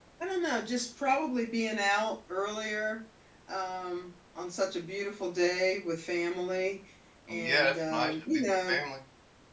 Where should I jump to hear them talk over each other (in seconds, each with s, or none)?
7.3 s